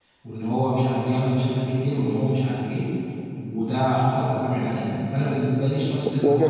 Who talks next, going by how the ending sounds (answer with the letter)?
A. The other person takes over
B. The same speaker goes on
B